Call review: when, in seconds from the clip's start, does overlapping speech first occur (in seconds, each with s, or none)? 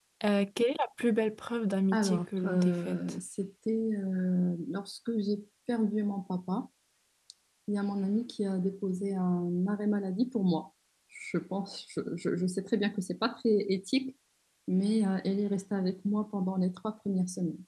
1.9 s